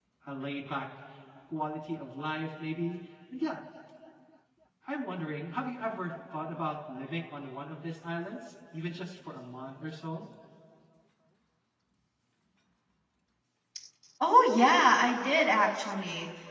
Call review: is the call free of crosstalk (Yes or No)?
Yes